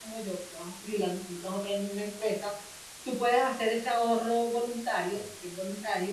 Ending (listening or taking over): listening